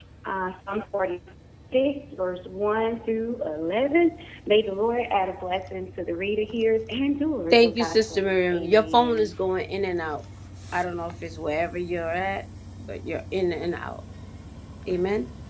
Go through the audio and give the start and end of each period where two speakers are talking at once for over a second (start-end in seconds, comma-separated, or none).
7.5-9.3